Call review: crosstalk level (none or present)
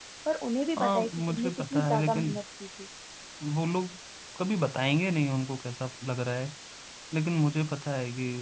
present